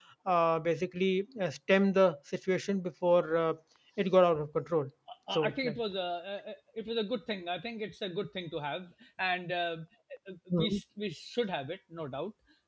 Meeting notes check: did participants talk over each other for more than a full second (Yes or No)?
No